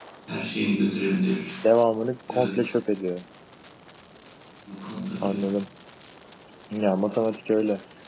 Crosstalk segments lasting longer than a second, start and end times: none

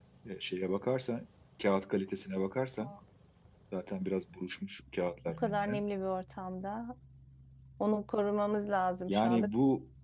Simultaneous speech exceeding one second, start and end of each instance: none

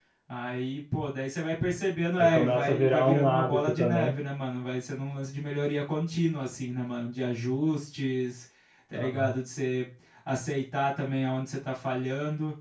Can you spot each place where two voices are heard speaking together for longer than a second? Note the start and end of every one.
2.2-4.1

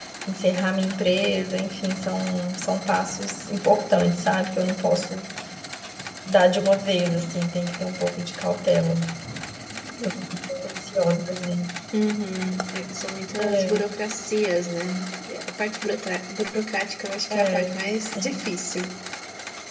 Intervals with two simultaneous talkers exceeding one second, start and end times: none

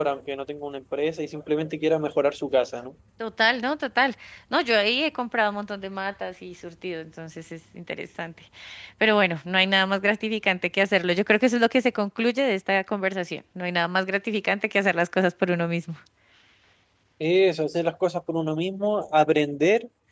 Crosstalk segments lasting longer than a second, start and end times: none

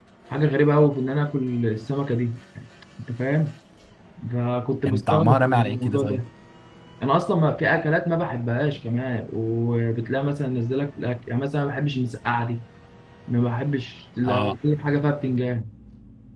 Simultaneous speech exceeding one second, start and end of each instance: 4.8-6.2

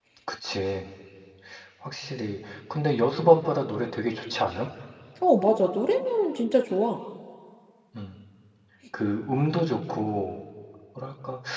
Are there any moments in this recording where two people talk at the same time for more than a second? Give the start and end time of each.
none

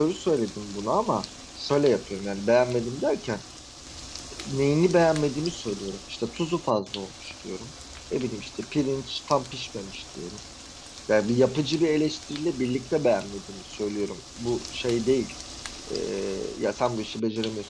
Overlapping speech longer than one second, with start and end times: none

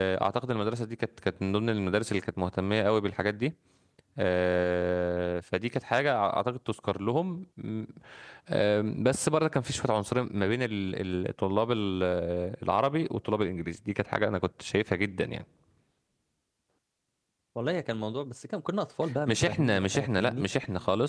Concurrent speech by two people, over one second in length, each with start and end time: 19.3-20.5

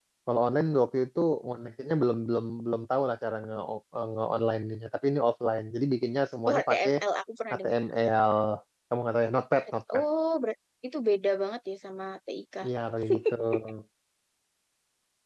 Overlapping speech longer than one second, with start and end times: none

